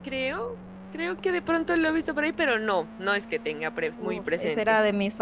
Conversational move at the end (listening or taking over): taking over